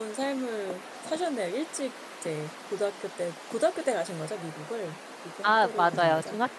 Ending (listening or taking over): taking over